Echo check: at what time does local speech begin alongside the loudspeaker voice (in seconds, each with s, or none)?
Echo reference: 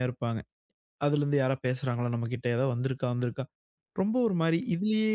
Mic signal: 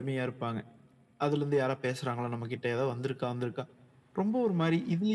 none